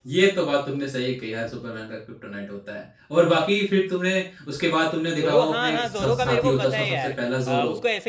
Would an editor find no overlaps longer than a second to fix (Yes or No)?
No